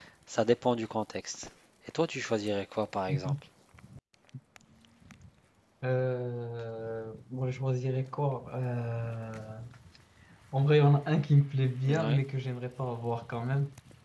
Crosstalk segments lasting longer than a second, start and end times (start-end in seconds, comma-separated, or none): none